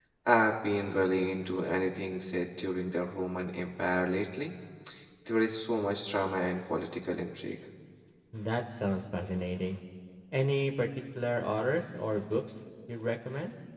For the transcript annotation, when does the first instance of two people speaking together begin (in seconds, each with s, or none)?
none